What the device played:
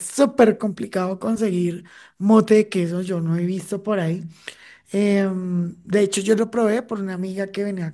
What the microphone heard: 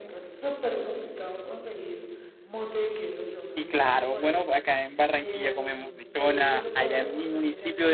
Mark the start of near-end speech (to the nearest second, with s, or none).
3 s